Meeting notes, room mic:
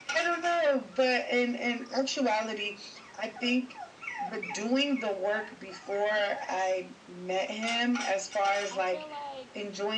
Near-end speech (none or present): present